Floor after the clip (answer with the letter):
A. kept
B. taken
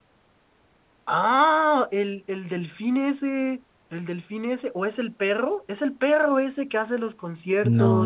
B